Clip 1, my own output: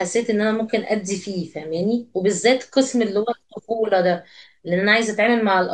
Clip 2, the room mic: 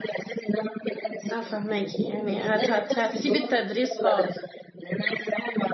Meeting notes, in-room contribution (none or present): present